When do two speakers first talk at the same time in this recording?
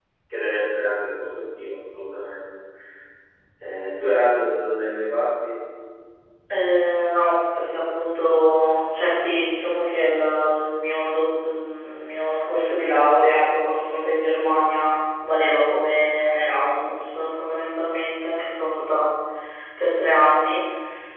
none

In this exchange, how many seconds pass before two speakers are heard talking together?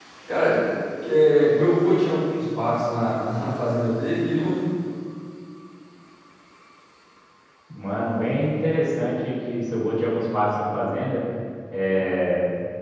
none

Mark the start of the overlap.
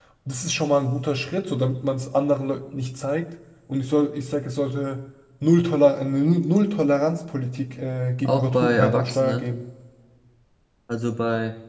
8 s

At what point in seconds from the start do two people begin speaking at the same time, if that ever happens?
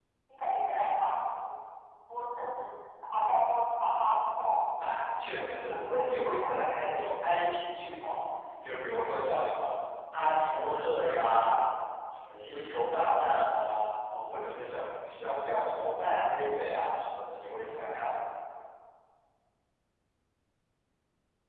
5 s

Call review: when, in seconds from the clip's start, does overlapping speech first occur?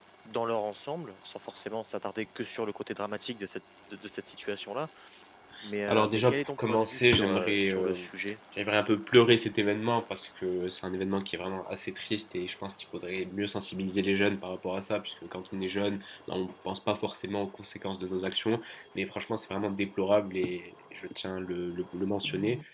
6 s

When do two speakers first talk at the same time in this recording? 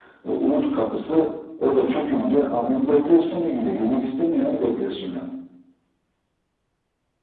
none

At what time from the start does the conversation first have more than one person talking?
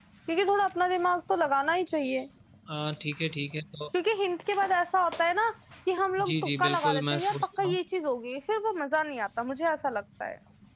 6 s

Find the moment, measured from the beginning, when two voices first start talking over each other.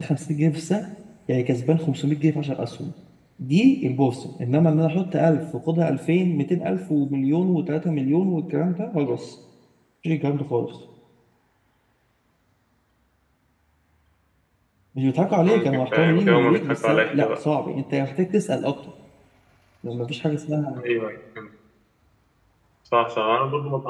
15 s

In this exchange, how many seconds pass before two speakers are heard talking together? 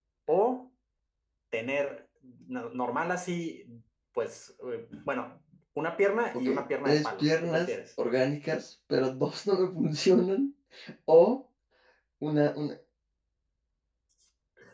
6 s

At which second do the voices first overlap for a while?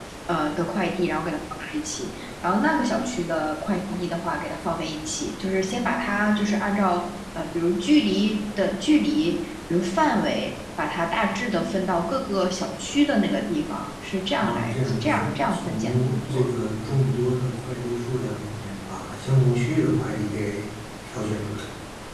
14 s

